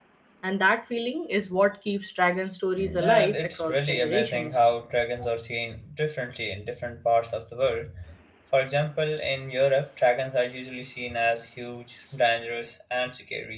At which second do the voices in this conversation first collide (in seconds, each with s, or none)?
2.8 s